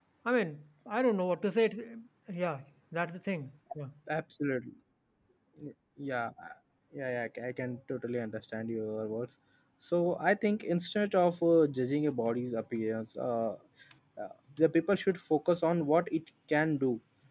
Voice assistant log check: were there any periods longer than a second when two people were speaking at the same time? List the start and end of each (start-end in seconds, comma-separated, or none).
none